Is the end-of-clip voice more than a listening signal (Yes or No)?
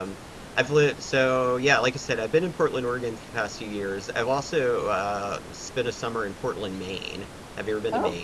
Yes